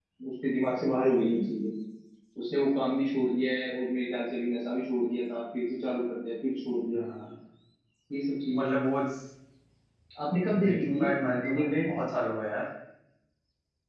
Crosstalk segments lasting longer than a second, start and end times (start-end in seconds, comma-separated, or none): 10.6-11.9